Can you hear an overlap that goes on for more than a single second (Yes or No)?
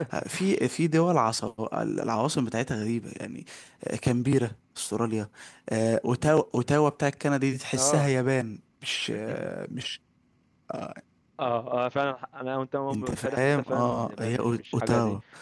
Yes